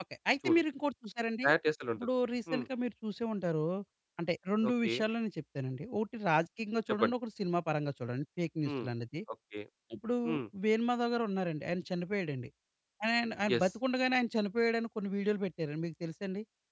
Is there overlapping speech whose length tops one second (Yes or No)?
No